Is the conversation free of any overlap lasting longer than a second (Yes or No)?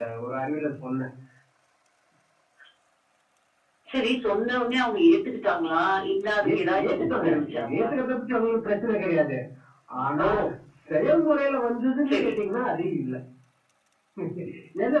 No